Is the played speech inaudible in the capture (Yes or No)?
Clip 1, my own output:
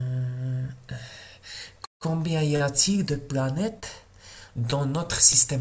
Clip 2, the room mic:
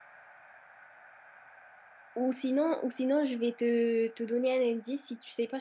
Yes